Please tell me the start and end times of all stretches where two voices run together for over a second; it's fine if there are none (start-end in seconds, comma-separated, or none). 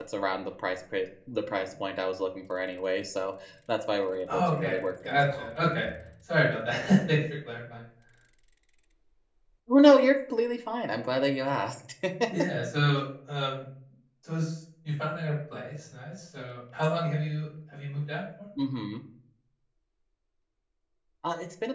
4.3-5.5